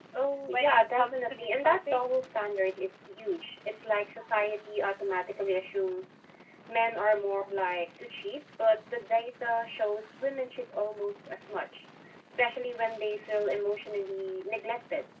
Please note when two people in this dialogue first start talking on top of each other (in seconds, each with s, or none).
0.5 s